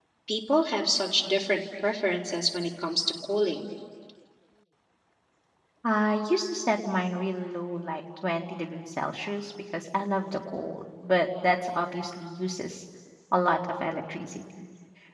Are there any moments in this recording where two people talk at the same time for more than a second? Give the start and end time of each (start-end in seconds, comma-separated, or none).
none